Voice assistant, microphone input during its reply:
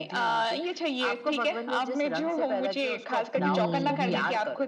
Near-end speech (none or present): present